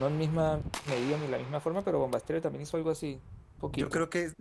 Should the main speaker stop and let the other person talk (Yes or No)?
Yes